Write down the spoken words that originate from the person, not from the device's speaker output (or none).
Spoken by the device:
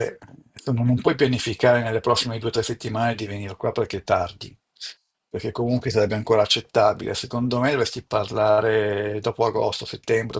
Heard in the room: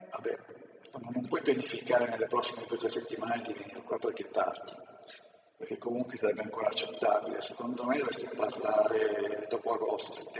none